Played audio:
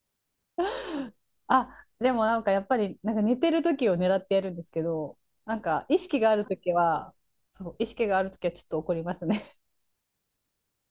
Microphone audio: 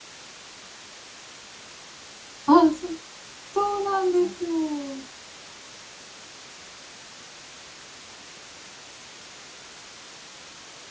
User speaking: Yes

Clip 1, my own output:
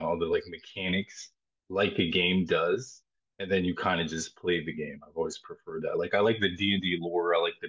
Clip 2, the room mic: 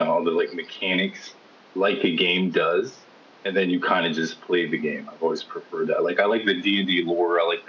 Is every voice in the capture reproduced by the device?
Yes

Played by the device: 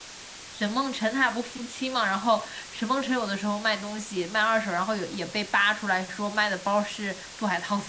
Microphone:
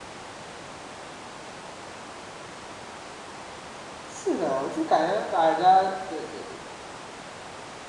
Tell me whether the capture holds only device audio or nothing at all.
No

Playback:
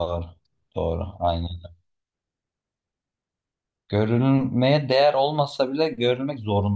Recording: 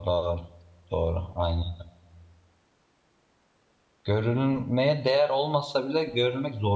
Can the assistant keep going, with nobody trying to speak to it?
Yes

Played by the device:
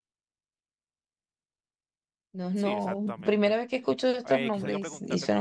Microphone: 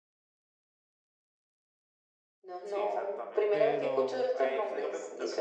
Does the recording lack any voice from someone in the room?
No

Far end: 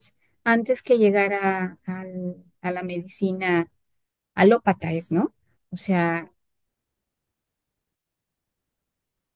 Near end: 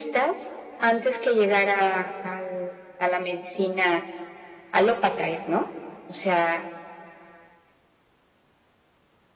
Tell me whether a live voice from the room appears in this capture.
No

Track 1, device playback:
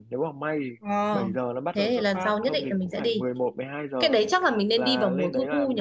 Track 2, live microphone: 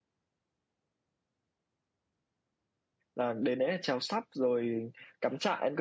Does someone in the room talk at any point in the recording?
Yes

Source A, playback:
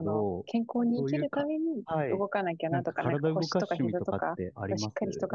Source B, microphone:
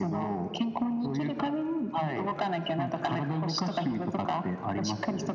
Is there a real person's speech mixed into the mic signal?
No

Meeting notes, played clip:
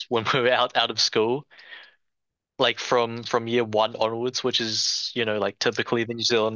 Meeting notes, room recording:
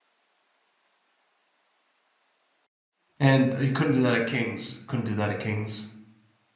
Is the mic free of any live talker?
No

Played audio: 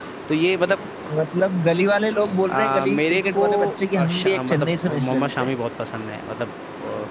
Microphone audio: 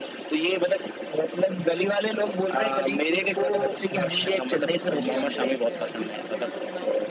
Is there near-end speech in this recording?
Yes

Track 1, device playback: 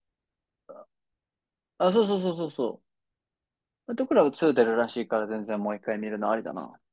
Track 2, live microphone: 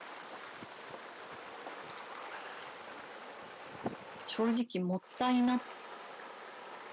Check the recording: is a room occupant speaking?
Yes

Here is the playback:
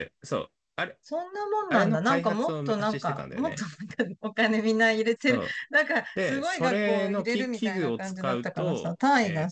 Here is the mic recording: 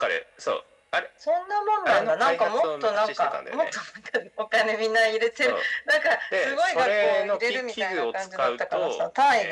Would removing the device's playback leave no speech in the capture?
Yes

